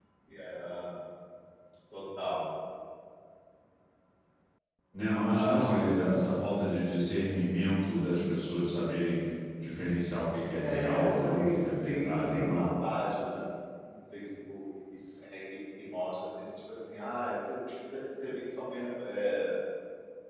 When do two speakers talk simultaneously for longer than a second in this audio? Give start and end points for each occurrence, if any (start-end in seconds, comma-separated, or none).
10.6-12.7